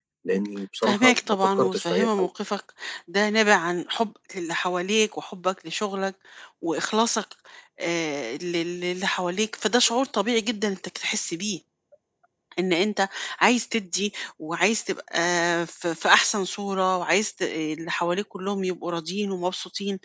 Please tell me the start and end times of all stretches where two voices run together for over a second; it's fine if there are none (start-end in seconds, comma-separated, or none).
0.8-2.3